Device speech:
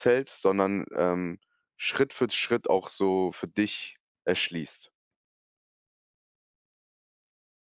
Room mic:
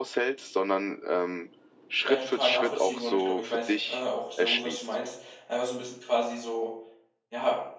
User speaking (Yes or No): Yes